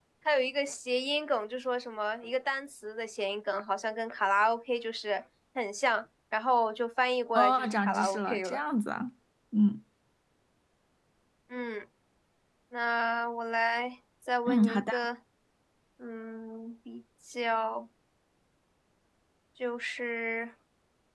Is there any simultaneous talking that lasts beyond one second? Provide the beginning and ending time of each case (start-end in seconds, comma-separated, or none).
7.4-8.6